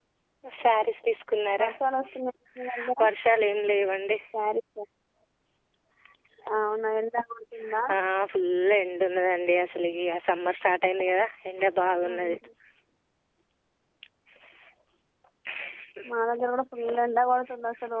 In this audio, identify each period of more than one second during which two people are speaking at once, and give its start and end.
none

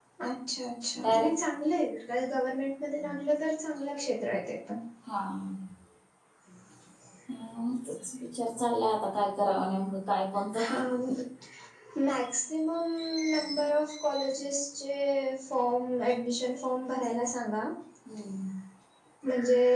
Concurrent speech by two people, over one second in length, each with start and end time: none

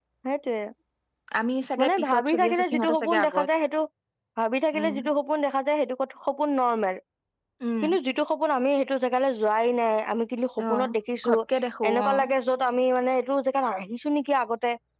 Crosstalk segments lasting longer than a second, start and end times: 1.8-3.5

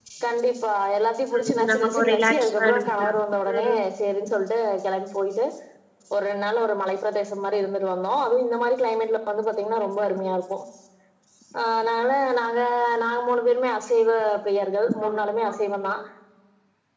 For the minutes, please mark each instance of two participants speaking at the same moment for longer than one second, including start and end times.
1.4-3.0

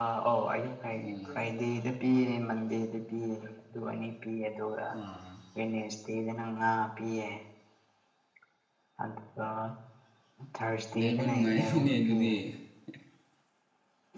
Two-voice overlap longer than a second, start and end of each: 11.0-12.3

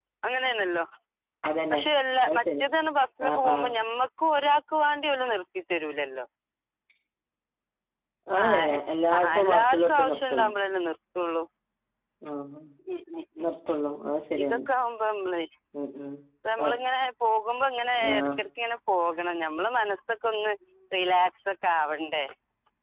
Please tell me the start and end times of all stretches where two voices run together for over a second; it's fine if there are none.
9.2-10.5

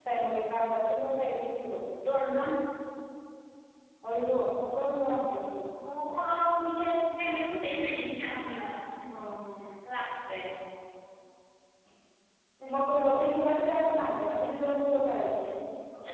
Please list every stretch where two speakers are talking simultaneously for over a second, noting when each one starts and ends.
none

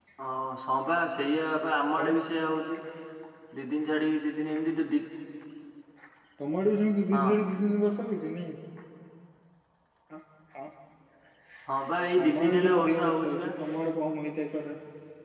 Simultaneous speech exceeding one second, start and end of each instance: 12.2-13.5

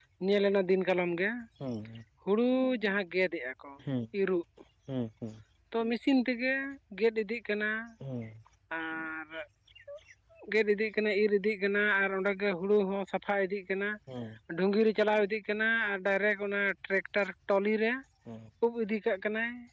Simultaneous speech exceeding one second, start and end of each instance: none

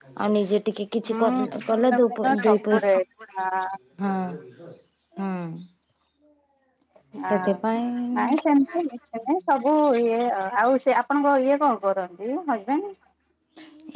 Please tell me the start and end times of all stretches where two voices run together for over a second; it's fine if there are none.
1.7-2.9

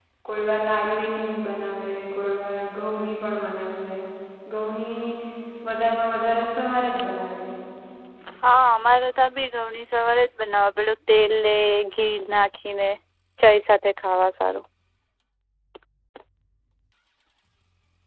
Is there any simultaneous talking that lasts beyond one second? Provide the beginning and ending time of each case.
none

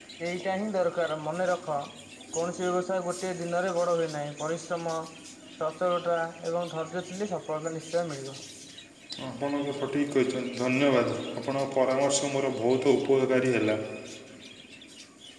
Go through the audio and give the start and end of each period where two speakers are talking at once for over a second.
none

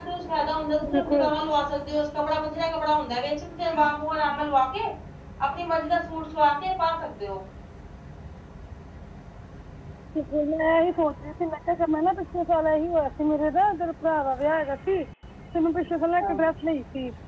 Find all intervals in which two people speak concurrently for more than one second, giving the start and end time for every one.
none

